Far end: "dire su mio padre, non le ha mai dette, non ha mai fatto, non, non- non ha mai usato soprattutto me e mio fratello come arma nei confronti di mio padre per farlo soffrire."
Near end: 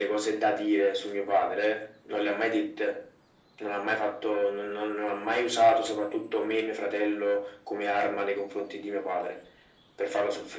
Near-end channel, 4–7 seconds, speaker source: echo only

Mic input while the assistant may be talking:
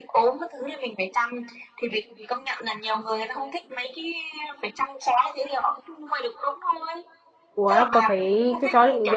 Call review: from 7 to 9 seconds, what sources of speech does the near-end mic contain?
both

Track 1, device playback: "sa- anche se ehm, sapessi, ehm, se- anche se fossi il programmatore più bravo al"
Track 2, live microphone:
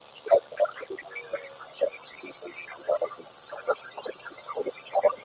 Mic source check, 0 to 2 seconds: echo only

